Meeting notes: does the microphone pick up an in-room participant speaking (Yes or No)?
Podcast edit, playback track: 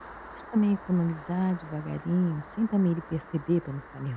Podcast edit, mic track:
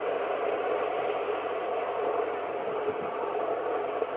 No